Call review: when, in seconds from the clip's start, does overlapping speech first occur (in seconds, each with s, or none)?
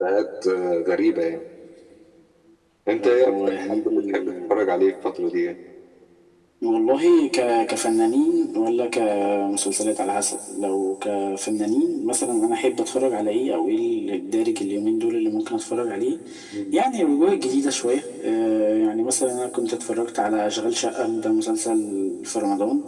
3.0 s